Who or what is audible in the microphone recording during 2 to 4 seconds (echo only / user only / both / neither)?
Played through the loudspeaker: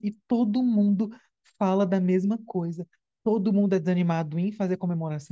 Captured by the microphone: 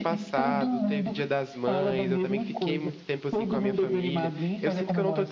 both